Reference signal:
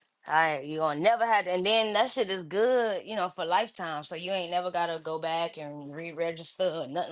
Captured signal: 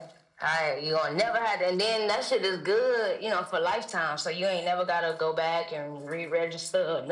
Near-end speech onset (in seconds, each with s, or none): none